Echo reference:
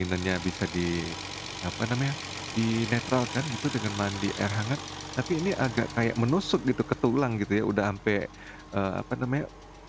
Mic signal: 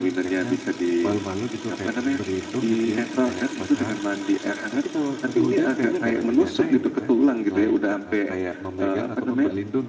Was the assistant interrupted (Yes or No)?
Yes